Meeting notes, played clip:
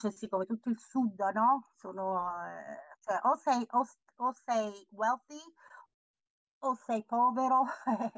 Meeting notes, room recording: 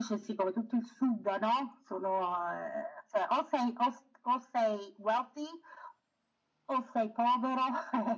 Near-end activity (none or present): none